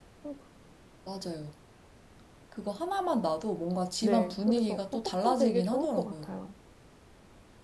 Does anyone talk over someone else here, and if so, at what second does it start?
4.0 s

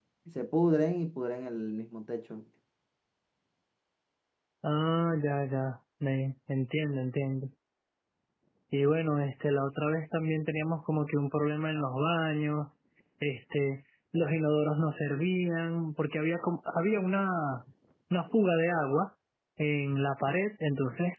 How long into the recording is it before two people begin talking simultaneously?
none

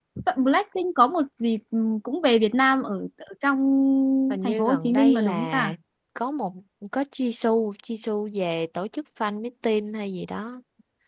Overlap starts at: 4.4 s

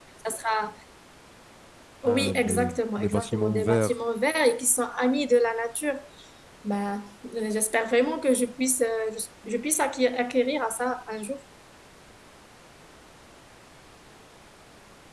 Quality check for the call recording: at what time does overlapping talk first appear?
2.1 s

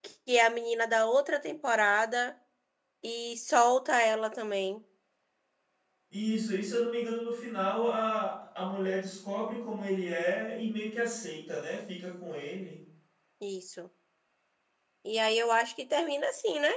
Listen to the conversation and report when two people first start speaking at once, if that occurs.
none

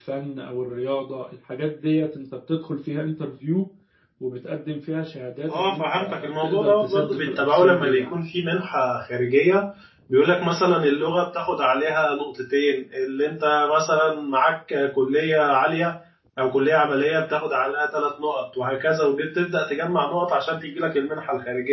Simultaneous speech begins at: 5.5 s

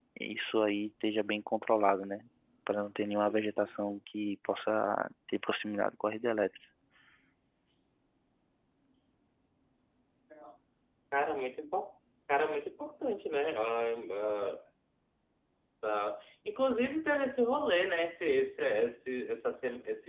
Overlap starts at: none

